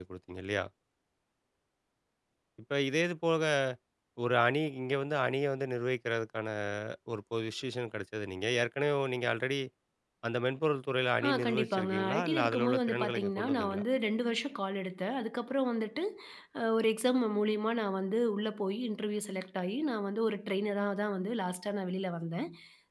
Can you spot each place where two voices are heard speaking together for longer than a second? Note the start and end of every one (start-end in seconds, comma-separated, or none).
11.2-13.8